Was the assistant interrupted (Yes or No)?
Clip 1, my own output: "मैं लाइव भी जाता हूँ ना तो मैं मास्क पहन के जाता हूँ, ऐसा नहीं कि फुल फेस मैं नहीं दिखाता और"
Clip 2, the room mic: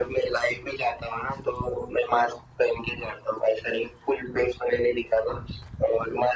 No